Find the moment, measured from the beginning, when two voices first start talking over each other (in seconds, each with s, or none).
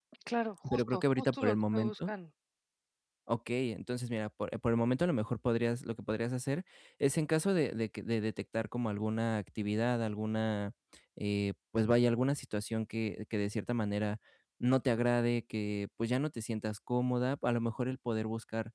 0.7 s